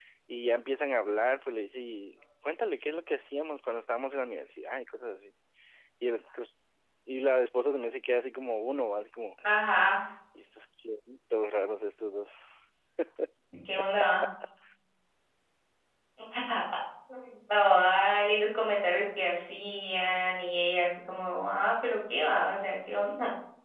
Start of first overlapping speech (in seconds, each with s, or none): none